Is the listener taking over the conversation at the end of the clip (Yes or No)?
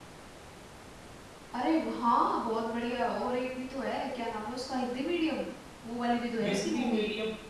Yes